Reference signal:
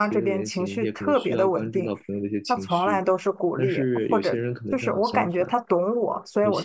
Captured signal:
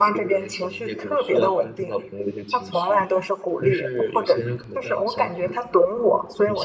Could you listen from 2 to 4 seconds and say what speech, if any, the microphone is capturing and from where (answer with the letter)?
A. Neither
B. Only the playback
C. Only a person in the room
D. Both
B